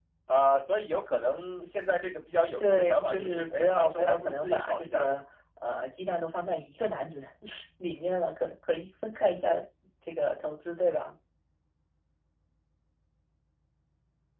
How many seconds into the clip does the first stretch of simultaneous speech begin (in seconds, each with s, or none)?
2.6 s